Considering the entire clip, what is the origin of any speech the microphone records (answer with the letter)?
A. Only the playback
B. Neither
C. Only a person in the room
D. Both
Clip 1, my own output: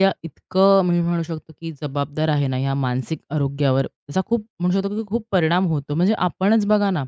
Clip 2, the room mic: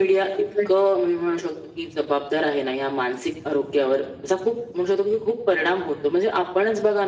D